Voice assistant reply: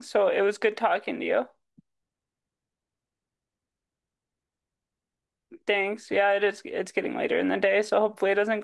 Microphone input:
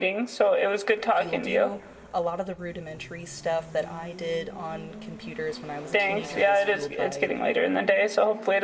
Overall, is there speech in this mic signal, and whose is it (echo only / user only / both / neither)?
both